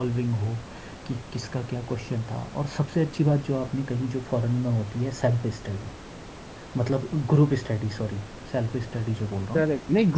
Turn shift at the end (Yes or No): Yes